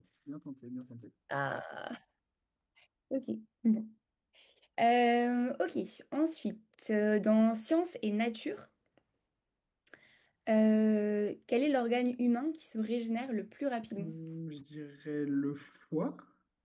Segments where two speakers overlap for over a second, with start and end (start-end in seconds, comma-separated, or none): none